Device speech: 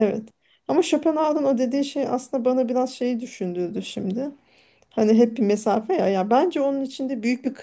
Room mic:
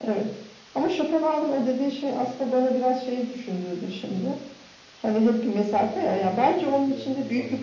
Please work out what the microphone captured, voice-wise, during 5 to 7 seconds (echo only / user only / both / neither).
both